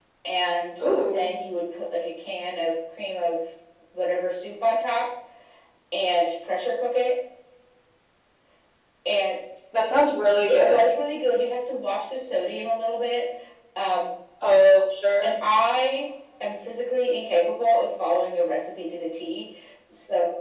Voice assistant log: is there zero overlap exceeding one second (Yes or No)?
Yes